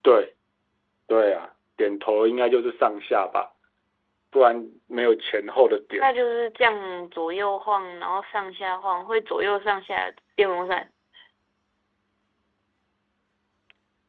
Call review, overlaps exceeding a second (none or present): none